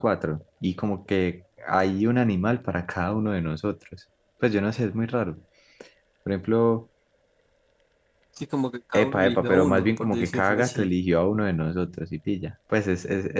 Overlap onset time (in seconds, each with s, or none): 8.9 s